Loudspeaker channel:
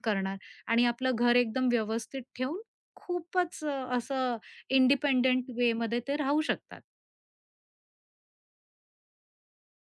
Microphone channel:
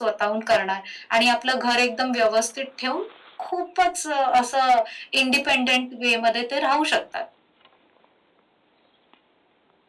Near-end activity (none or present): none